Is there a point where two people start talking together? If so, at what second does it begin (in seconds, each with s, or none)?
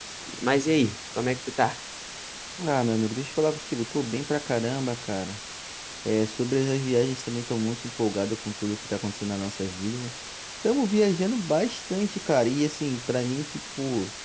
none